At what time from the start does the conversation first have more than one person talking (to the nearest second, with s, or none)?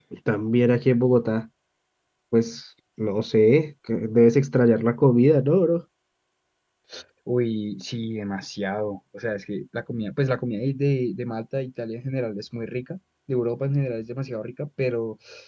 none